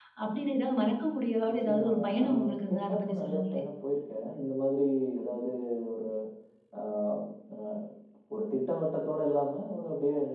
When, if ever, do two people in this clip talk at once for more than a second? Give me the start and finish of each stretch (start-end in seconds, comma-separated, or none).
1.5-3.6